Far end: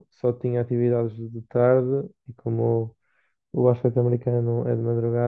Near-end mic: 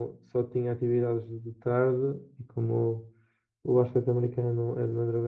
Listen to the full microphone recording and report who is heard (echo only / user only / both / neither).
echo only